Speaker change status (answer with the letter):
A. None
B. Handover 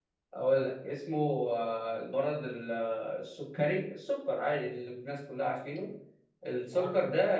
A